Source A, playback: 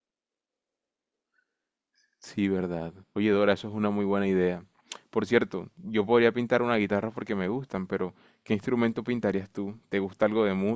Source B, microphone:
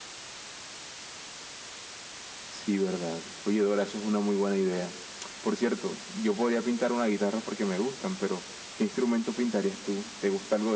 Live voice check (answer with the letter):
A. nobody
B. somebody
A